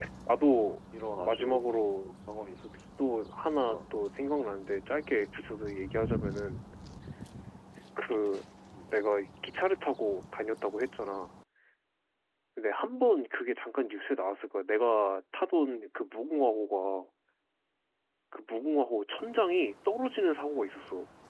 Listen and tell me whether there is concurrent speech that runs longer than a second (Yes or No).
No